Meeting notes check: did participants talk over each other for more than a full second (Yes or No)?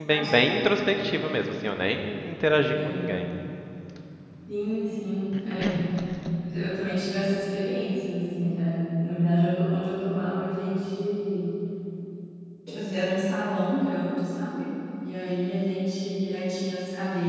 No